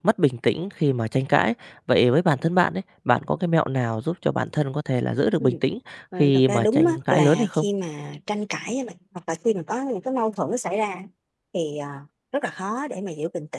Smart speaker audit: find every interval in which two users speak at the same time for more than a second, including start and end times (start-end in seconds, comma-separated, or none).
6.2-7.7